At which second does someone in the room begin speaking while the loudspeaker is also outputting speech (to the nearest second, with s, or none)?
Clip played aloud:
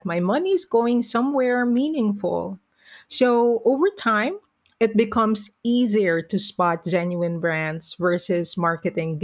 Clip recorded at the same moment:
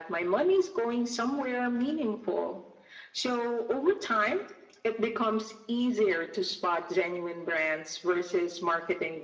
none